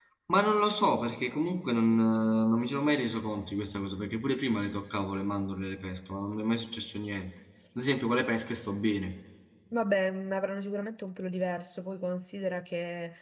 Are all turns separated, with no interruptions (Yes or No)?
Yes